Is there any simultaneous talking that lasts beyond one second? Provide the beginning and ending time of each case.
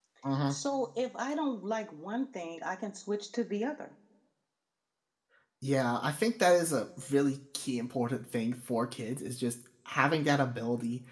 none

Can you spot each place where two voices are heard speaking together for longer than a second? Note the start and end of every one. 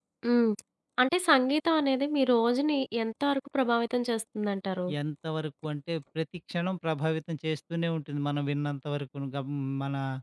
none

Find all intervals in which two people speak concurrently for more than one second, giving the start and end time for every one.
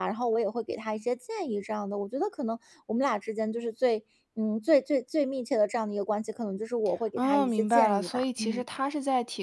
7.2-8.6

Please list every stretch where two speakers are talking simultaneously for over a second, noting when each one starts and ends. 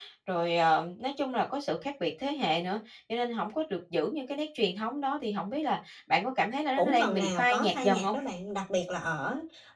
6.8-8.2

